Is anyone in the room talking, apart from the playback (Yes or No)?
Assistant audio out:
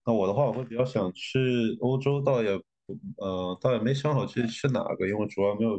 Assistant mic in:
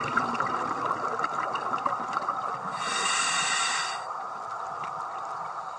No